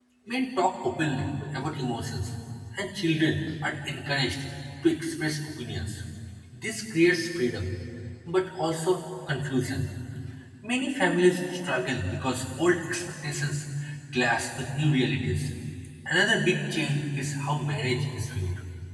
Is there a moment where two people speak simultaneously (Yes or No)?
No